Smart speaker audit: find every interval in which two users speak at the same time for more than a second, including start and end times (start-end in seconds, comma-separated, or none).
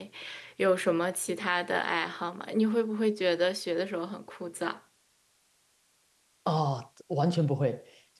none